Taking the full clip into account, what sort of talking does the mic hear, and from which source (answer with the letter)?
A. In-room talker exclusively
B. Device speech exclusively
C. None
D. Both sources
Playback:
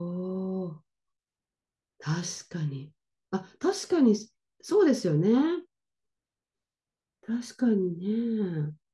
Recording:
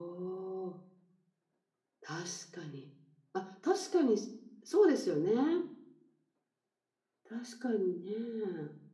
B